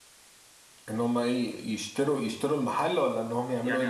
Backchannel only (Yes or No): No